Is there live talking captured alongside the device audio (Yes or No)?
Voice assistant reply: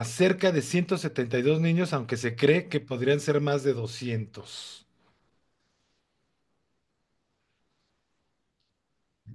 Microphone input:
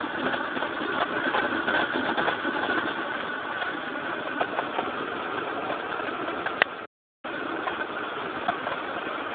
No